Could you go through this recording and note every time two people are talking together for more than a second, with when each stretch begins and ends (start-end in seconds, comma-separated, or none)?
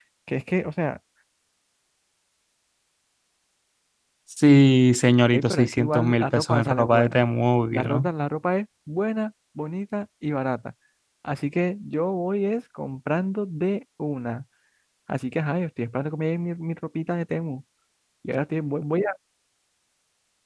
5.3-7.2